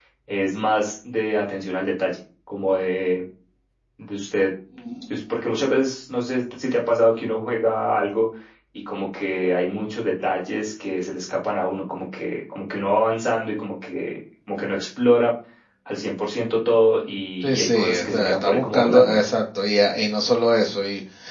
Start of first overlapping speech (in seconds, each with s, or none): 17.4 s